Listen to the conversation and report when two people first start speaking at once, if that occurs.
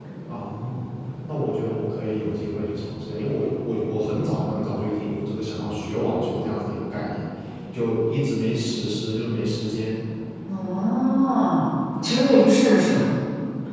none

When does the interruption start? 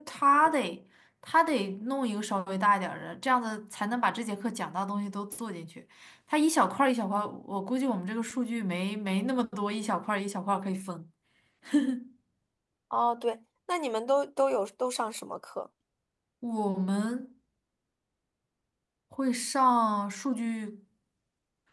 none

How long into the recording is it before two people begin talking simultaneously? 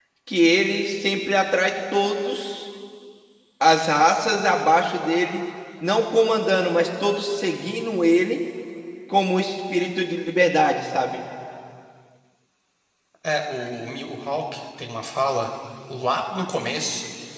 none

